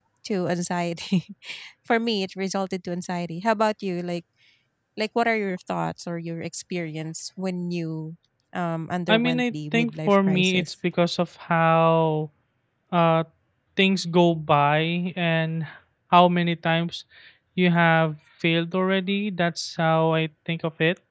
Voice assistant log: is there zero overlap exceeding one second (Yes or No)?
No